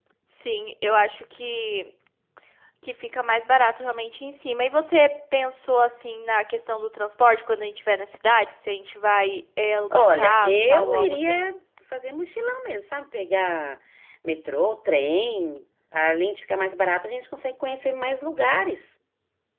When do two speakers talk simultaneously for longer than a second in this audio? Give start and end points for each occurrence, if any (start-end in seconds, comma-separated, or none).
9.9-11.4